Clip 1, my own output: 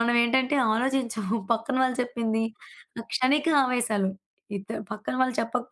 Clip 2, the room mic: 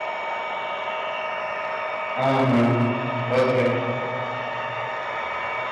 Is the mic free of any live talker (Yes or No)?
No